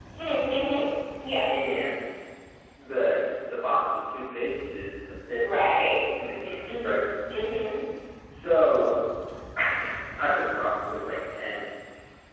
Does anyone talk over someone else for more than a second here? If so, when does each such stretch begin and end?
none

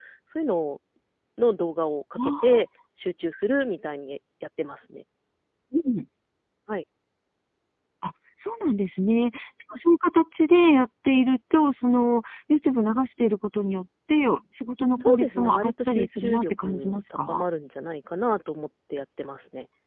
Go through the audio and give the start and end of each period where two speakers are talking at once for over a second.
15.0-17.4

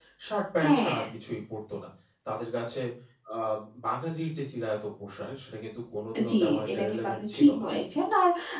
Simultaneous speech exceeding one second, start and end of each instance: 6.3-7.6

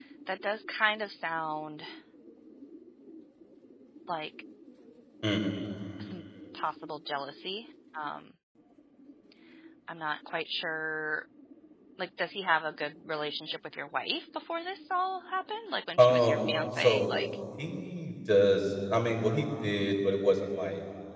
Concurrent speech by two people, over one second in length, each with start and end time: 16.0-17.2

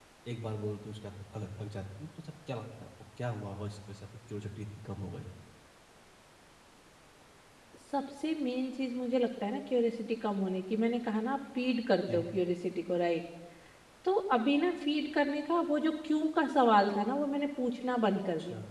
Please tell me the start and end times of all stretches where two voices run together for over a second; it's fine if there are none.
none

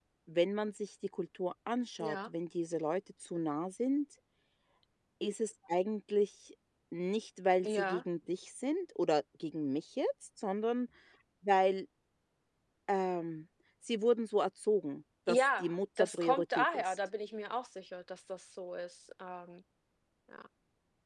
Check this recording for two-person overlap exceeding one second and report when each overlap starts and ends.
15.3-17.0

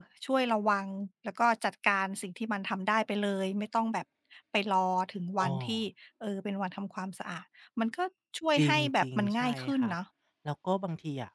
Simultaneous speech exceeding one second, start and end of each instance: 8.6-9.9

